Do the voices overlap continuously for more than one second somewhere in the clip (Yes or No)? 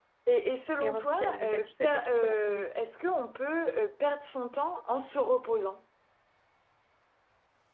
Yes